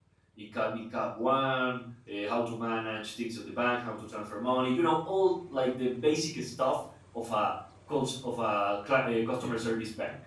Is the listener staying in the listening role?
Yes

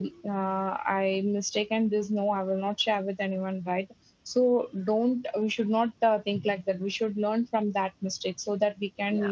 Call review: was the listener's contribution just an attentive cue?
Yes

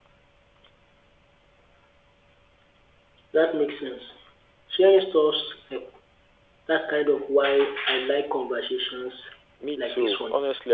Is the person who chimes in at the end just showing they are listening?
No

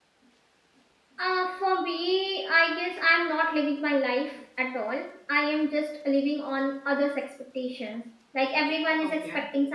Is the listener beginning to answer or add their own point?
No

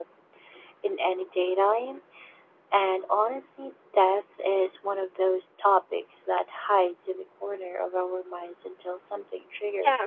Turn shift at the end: Yes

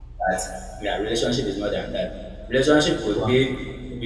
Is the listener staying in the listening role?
Yes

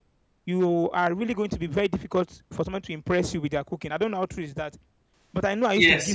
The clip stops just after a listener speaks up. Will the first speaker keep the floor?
No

